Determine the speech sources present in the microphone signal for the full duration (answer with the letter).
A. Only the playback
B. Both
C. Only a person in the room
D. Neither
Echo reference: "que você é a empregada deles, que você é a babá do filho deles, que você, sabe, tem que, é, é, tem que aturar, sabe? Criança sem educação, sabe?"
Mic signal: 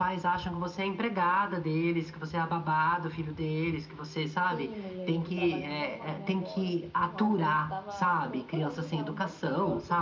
B